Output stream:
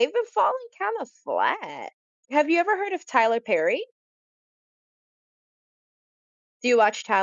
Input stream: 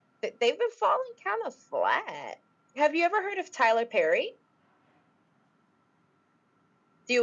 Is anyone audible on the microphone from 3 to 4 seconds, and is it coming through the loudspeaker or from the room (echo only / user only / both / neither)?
echo only